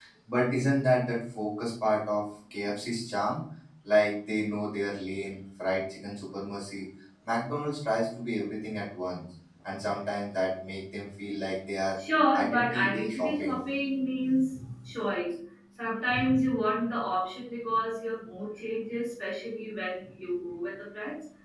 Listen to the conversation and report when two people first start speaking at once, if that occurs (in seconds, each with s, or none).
12.3 s